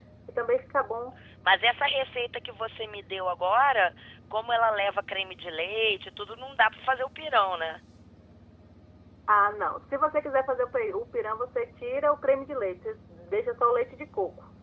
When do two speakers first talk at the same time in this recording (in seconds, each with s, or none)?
none